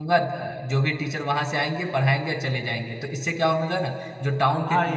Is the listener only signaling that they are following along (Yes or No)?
Yes